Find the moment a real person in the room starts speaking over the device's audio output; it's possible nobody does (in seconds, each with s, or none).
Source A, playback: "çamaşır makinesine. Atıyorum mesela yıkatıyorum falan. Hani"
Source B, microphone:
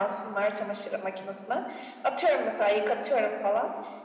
none